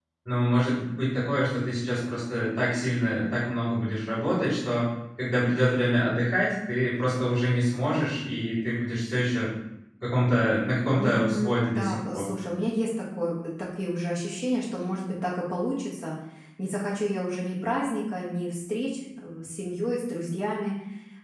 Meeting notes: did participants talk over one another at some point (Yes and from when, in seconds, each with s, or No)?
Yes, from 11.0 s